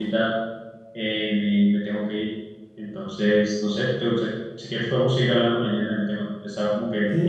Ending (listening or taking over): taking over